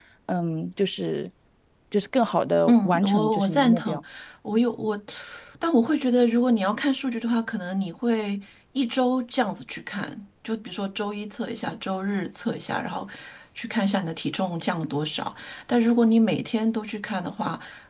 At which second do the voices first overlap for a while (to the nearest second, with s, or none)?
3 s